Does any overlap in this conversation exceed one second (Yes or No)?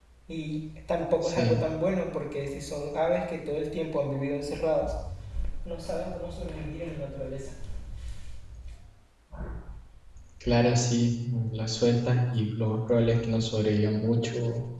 No